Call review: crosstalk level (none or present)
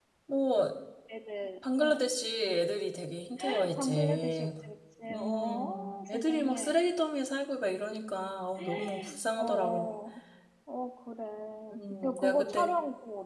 present